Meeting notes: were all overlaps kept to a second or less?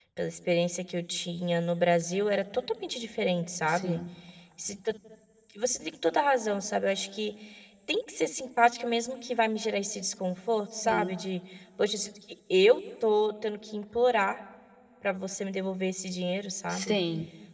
Yes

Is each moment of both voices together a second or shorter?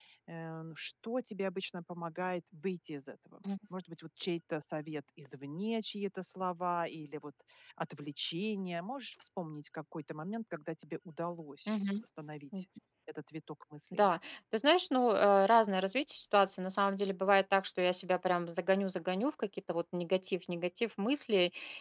Yes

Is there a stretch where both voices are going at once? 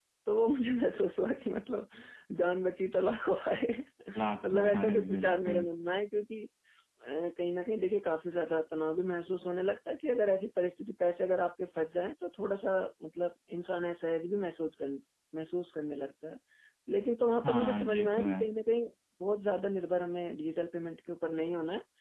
Yes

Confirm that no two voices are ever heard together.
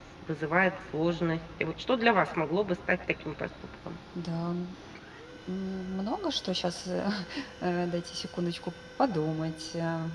Yes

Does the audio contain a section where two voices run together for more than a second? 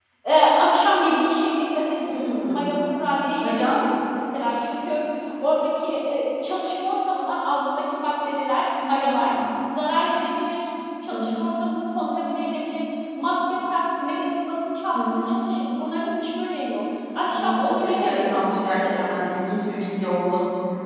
Yes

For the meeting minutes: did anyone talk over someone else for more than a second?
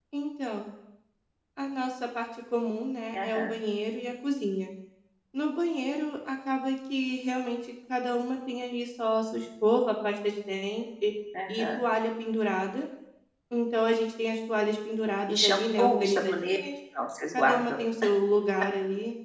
Yes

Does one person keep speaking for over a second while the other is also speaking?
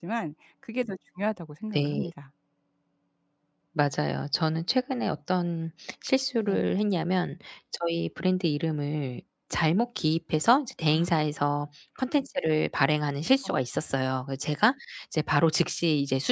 No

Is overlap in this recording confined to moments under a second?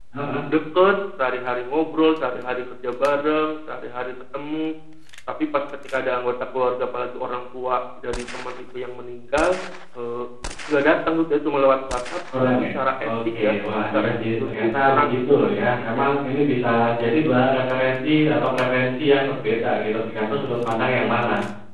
No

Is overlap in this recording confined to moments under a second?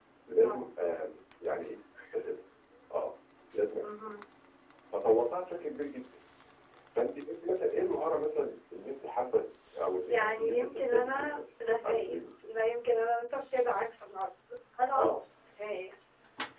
No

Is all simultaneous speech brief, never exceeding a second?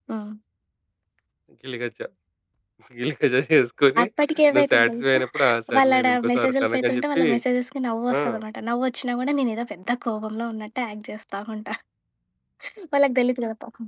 No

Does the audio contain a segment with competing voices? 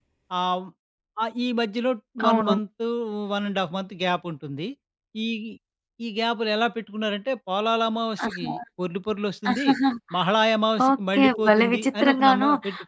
Yes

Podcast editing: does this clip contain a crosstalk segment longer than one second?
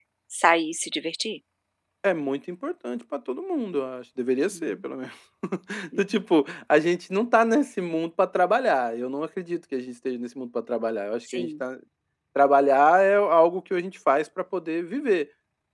No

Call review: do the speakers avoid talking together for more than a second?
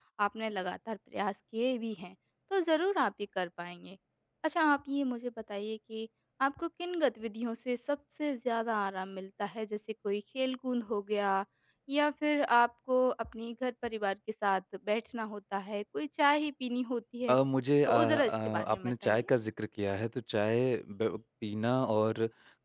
No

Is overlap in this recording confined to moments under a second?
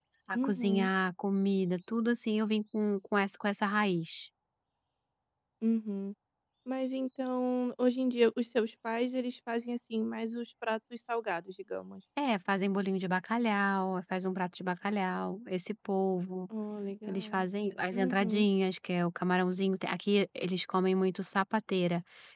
Yes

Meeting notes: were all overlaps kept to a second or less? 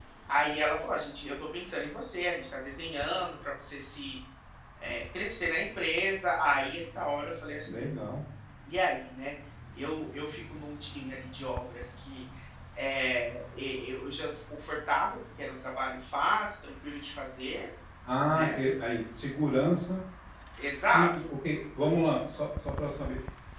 Yes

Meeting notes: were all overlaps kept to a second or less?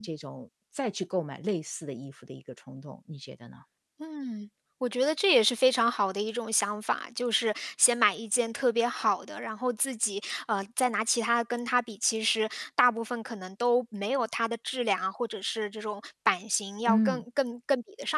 Yes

